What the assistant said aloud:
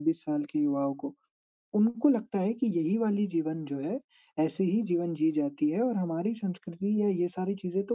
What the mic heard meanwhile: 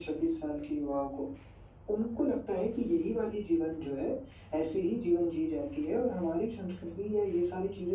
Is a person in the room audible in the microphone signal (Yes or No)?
No